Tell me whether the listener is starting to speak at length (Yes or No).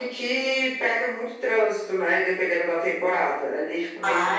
Yes